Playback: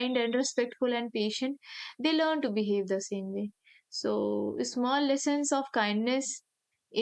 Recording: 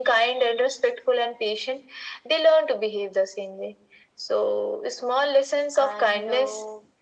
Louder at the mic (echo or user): echo